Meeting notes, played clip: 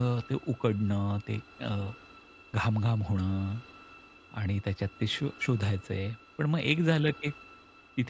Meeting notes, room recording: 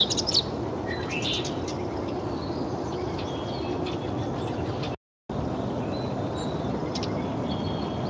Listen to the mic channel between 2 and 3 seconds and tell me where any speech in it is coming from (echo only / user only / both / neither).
neither